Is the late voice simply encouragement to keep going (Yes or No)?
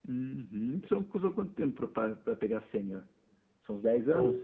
No